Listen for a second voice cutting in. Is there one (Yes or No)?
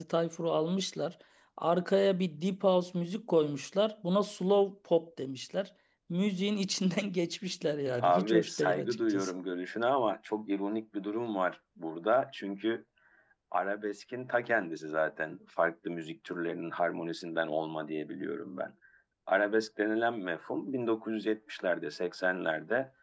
Yes